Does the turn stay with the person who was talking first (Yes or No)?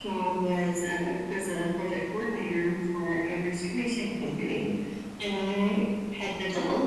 Yes